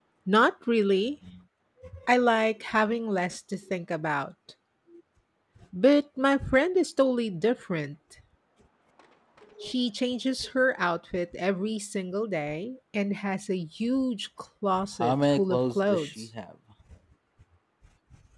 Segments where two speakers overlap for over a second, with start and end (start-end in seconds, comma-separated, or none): 15.0-16.2